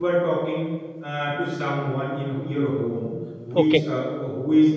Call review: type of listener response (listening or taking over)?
listening